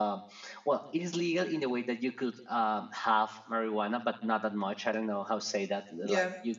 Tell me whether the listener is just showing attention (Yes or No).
No